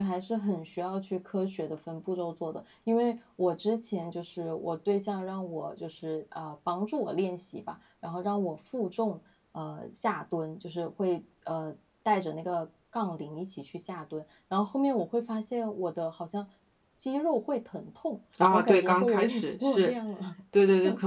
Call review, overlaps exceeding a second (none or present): present